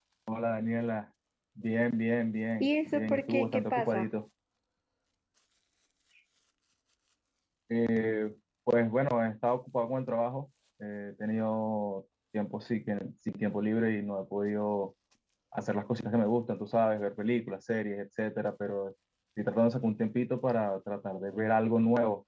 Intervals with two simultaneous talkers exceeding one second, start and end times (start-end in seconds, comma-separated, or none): 2.6-4.1